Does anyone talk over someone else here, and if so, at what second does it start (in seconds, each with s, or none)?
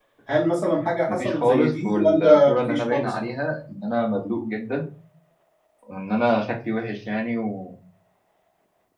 1.1 s